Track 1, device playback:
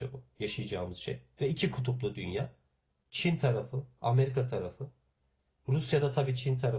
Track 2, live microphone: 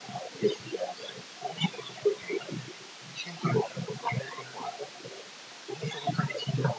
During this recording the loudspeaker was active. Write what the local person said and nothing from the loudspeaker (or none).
none